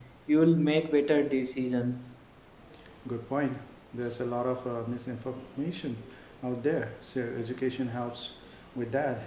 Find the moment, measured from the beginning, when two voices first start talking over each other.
none

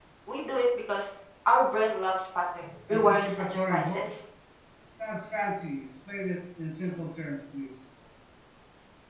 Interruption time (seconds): 2.9 s

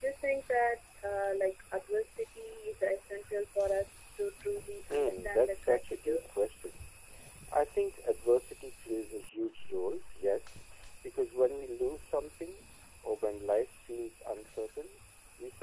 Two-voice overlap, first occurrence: 4.9 s

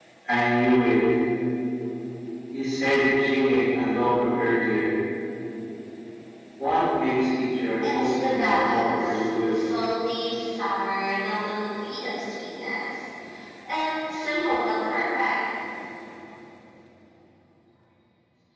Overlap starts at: 7.8 s

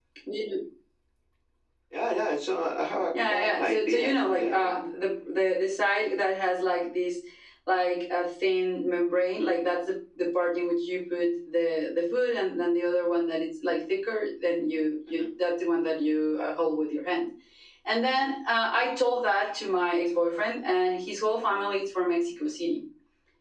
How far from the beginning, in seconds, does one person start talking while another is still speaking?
3.1 s

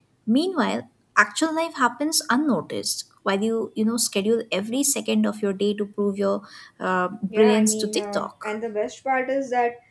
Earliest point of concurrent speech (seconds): 7.3 s

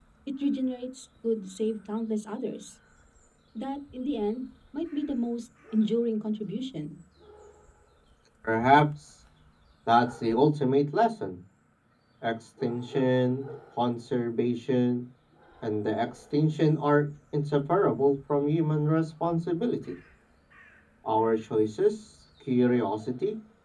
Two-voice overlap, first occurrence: none

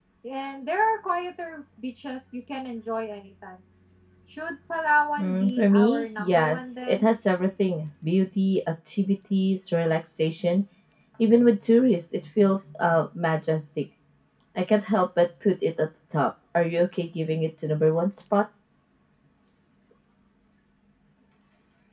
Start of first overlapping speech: 5.2 s

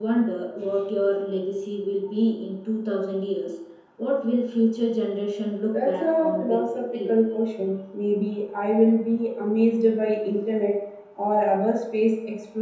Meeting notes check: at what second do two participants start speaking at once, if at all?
5.7 s

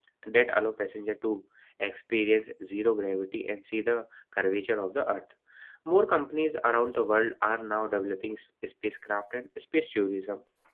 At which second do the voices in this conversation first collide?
none

